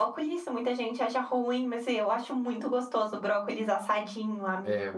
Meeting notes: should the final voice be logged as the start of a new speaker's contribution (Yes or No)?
Yes